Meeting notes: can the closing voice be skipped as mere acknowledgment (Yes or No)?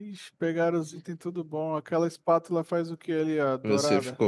No